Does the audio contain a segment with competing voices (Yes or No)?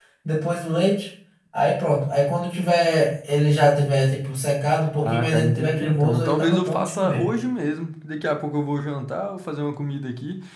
Yes